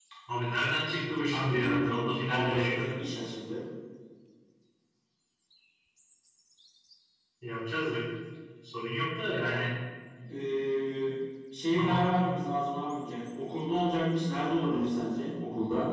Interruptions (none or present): present